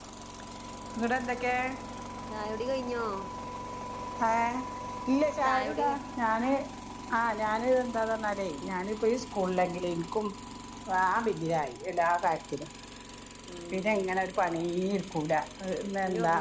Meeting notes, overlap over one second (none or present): none